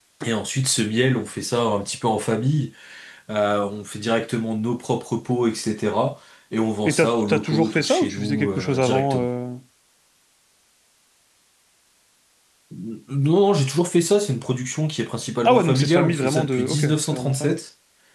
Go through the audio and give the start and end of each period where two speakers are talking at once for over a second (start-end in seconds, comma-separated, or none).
6.8-9.3, 15.4-17.6